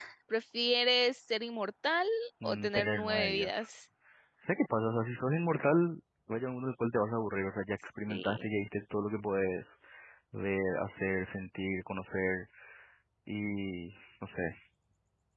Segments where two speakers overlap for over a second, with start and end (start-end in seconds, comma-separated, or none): 2.4-3.7